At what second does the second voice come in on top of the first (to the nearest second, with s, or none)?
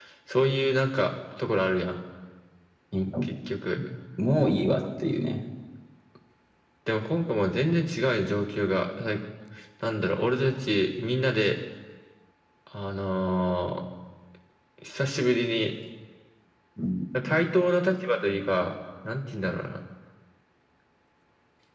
none